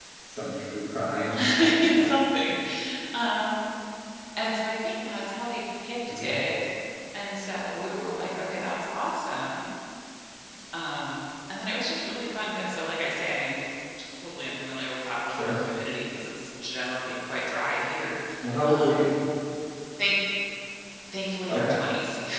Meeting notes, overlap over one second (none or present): none